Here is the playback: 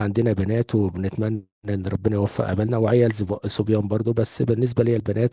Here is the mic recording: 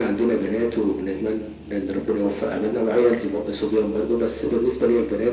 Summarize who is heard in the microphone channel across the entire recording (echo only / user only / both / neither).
echo only